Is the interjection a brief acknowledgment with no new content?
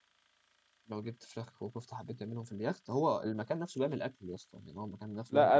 No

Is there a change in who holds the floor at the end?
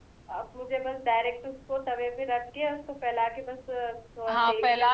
Yes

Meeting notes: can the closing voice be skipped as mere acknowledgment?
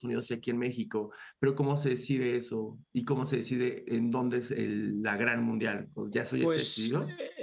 No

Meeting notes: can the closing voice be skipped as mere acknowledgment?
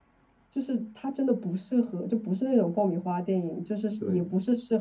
Yes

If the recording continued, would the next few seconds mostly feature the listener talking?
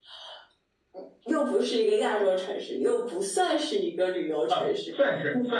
Yes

